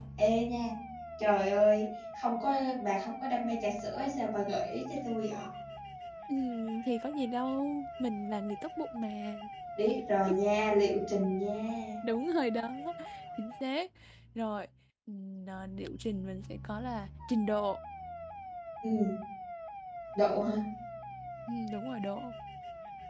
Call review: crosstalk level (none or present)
none